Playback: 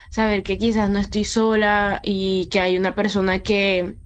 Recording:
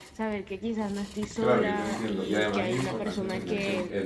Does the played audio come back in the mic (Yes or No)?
Yes